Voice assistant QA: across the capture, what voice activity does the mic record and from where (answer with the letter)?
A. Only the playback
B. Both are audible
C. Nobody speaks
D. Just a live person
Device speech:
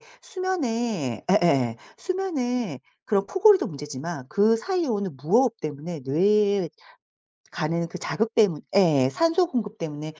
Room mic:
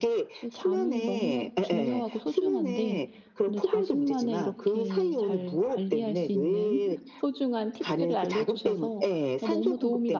B